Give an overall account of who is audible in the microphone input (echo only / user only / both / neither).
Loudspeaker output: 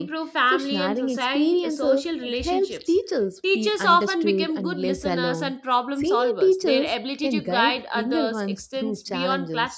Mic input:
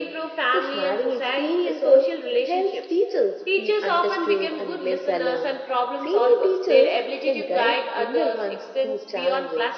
echo only